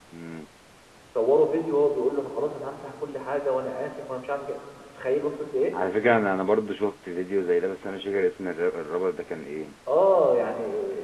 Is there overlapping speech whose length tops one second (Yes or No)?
No